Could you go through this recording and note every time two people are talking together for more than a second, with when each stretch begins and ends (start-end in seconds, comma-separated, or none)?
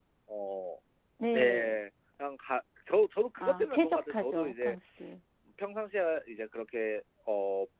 3.4-4.8